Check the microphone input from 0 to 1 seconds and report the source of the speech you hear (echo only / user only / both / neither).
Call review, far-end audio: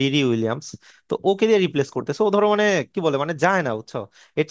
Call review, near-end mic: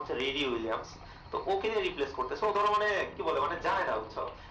echo only